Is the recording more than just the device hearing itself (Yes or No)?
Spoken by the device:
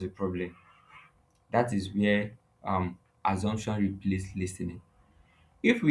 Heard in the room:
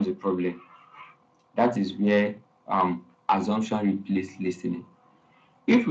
No